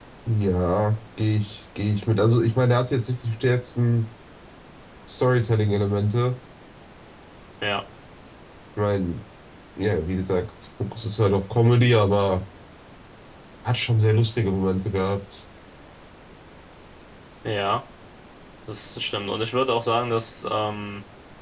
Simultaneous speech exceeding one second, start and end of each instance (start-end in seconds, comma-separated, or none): none